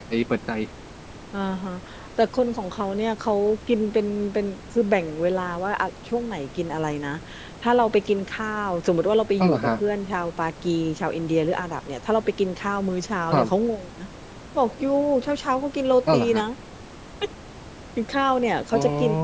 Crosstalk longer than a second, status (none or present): none